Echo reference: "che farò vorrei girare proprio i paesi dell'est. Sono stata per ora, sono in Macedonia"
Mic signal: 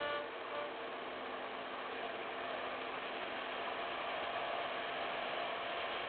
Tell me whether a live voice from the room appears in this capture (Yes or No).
No